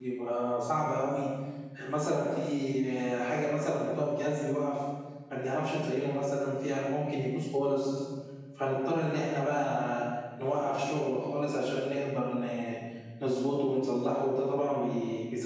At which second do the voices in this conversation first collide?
none

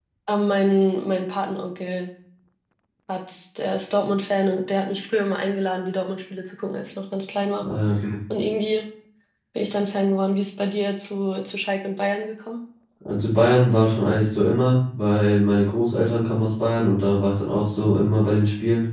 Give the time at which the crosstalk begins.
none

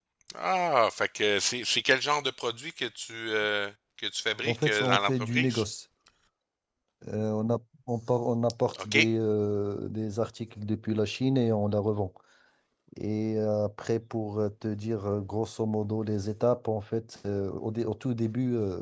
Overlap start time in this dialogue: 4 s

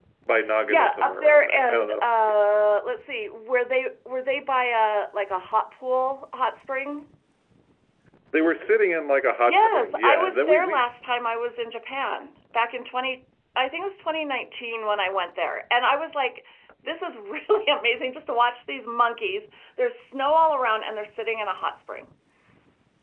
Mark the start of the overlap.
1 s

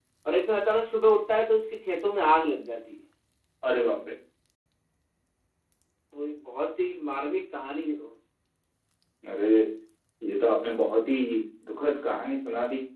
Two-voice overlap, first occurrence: none

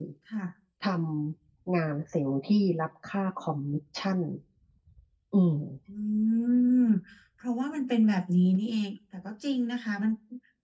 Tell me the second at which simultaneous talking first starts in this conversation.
none

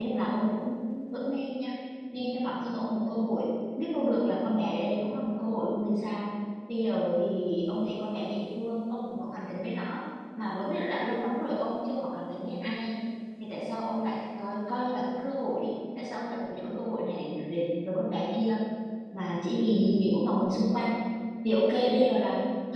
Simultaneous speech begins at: none

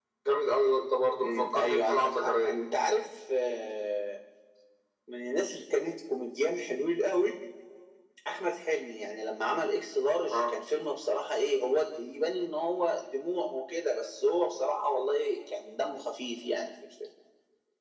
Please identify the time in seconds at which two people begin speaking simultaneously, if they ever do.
1 s

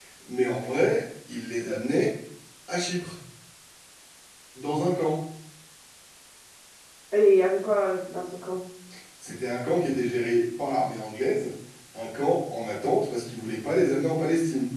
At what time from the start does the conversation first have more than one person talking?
none

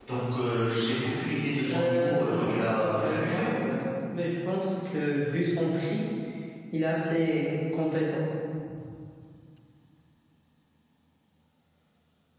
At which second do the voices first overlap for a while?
2 s

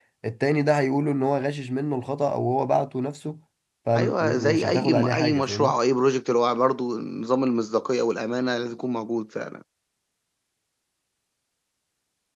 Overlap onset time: 4 s

